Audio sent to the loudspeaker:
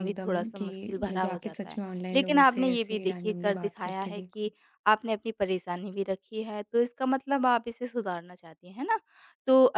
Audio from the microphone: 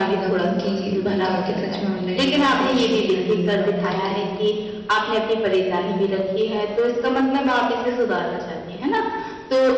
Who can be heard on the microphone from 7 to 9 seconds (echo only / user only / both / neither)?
echo only